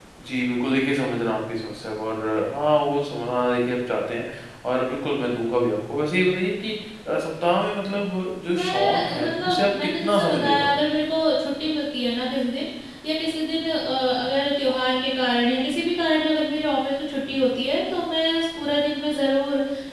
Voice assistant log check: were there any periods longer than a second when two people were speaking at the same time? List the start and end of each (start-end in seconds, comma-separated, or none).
8.5-10.5